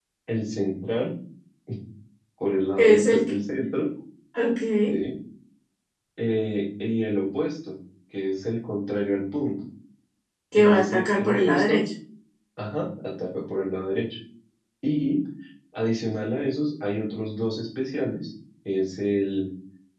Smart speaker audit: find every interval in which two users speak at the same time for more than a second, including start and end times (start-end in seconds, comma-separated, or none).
10.5-11.8